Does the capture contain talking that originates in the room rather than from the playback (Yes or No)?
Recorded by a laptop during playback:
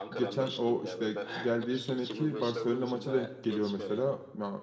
Yes